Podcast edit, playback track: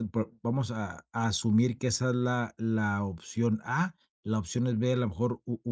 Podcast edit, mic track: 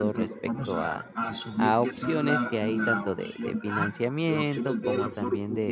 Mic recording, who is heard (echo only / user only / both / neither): both